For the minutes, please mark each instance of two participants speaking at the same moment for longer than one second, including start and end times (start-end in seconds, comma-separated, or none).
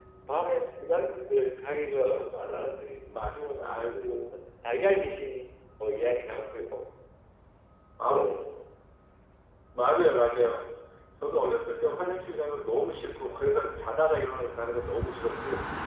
3.0-4.3